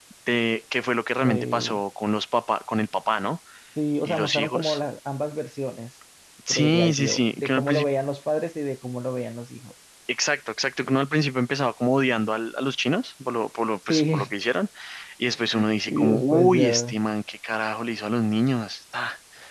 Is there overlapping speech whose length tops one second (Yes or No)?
Yes